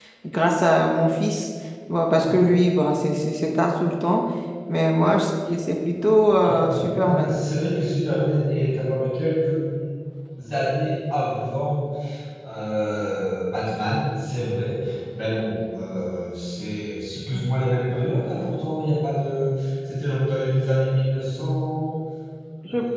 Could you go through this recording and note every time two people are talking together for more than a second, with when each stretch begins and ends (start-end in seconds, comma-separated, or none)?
6.2-7.5